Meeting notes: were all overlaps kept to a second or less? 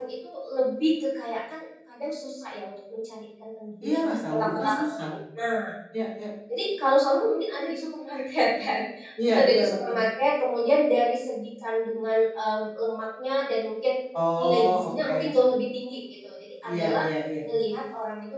No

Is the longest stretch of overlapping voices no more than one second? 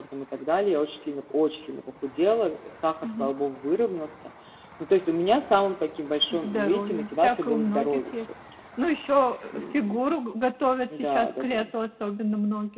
No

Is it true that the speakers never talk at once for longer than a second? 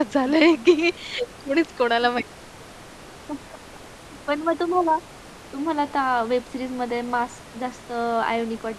Yes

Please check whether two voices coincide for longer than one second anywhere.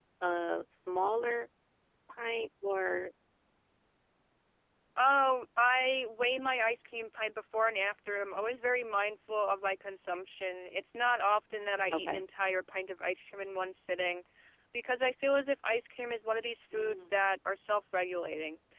No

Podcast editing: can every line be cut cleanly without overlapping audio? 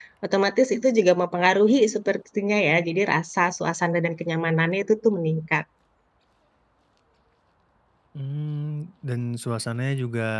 Yes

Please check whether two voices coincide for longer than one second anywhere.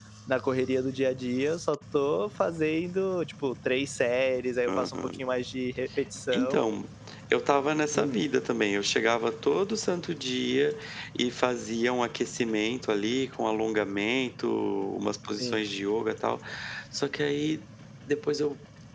No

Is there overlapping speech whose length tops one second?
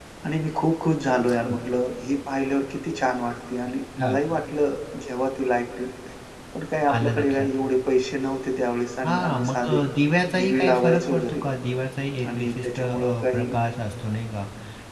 Yes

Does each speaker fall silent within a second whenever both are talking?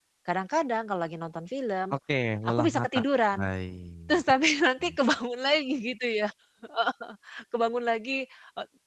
Yes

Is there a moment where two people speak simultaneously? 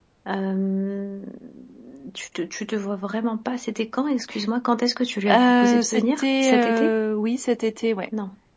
Yes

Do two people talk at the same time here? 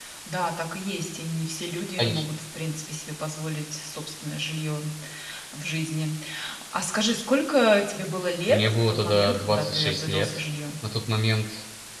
Yes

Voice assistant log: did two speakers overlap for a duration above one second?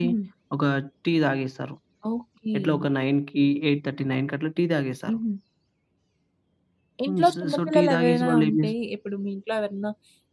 Yes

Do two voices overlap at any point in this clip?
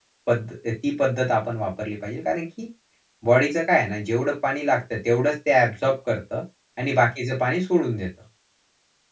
No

